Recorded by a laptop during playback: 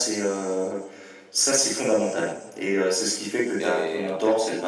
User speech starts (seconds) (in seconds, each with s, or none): 3.6 s